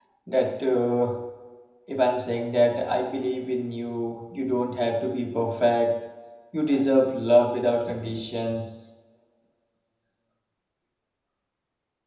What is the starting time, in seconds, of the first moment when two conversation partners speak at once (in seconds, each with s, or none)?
none